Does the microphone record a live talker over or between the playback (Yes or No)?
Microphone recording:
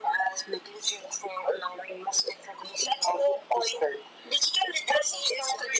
No